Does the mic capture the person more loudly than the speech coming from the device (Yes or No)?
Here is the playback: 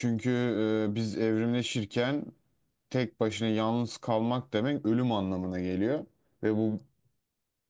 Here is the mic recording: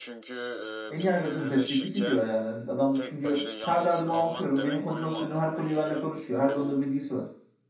Yes